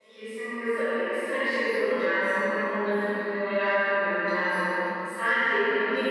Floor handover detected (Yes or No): No